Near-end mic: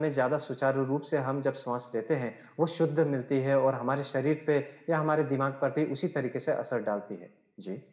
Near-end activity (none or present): none